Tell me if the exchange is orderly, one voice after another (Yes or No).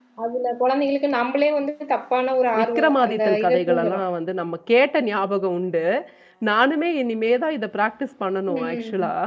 No